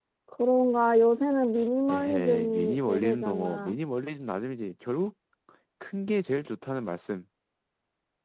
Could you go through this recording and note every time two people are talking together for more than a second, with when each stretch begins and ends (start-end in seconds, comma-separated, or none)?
1.9-3.7